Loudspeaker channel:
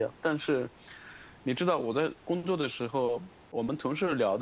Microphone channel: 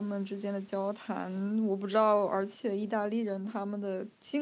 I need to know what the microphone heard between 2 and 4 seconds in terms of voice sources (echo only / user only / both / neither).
user only